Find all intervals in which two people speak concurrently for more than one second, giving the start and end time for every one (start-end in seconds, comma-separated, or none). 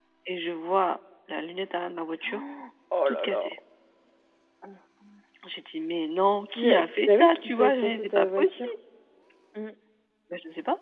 6.5-8.5